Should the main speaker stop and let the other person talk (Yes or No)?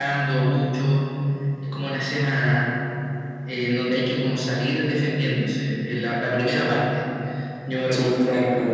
Yes